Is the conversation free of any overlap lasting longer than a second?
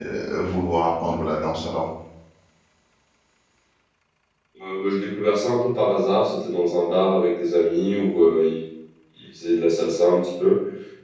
Yes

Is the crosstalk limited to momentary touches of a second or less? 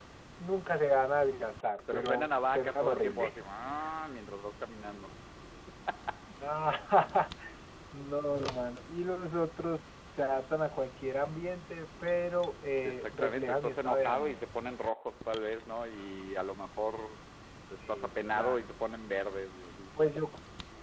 No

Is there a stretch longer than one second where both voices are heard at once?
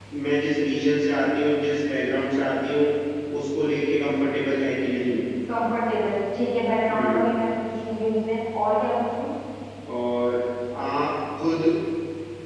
No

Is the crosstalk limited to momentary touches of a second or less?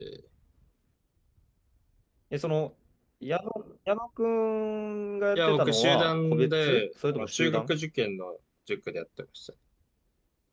No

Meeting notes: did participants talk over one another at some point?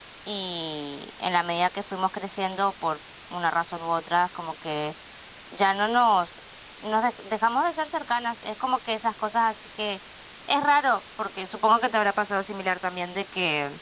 No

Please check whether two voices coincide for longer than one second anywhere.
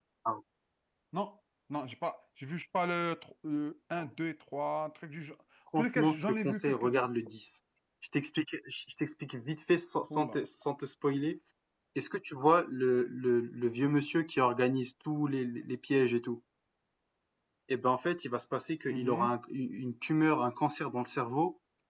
Yes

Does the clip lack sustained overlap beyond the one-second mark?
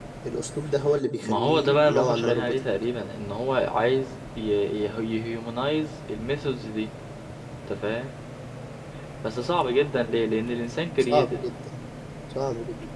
No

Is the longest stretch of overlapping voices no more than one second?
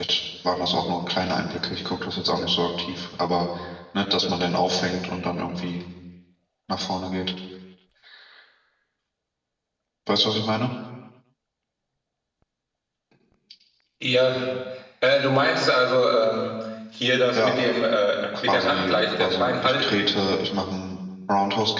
No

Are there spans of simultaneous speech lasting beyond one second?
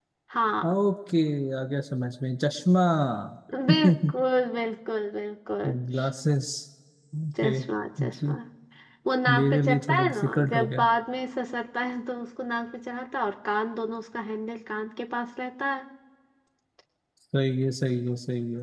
Yes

